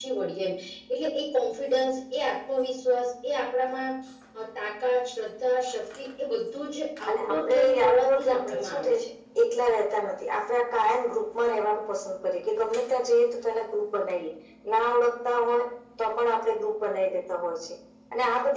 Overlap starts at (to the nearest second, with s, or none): 7 s